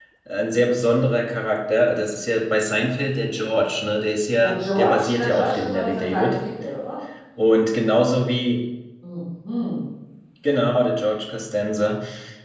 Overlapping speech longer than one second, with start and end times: 4.4-6.4

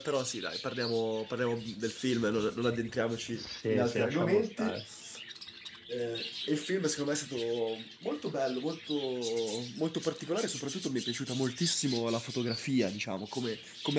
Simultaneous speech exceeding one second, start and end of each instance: 3.3-4.8

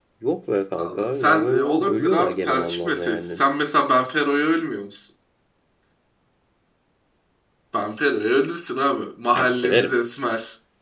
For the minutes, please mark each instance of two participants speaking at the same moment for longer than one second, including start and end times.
0.7-3.4

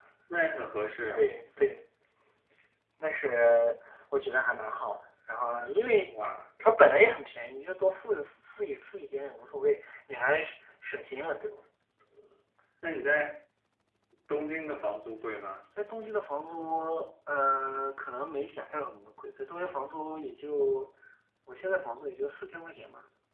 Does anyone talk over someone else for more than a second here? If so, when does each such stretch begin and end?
none

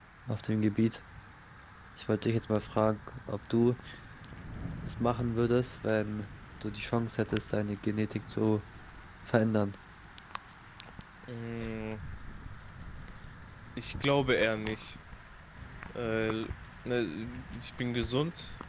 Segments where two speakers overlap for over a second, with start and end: none

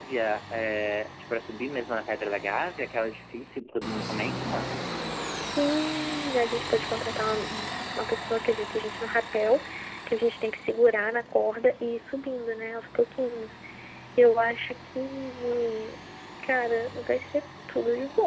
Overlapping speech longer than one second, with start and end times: none

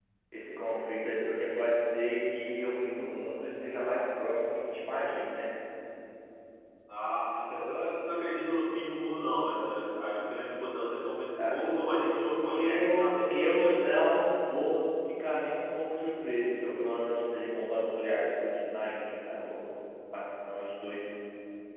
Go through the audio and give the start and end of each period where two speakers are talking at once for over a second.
12.5-13.7

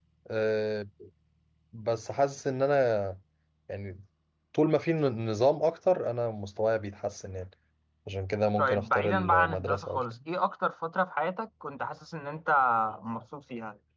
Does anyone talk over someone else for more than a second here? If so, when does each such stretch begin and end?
8.6-10.0

